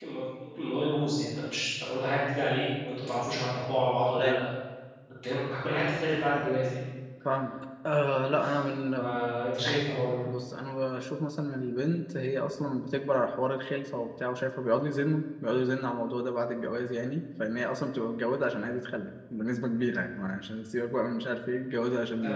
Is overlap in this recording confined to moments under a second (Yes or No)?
Yes